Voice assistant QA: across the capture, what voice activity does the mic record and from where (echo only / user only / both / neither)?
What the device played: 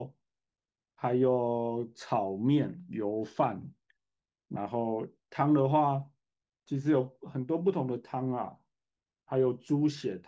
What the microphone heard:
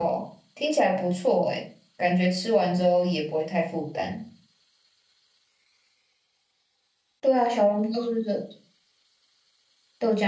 user only